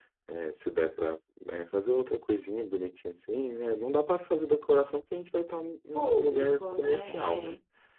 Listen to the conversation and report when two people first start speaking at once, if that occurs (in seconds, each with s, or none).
5.9 s